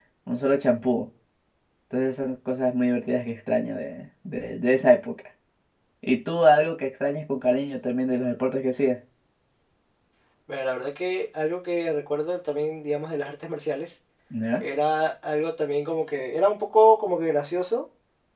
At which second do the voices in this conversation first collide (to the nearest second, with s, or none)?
none